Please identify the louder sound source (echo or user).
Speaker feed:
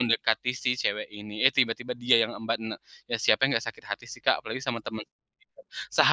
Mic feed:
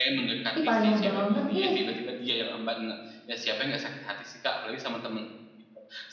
user